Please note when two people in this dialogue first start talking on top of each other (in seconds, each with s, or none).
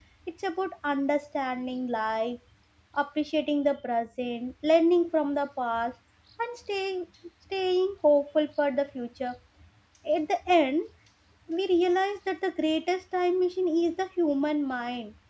none